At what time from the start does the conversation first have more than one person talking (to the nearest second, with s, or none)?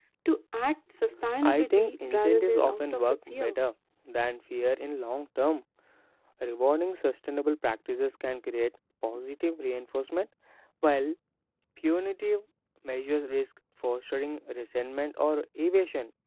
1 s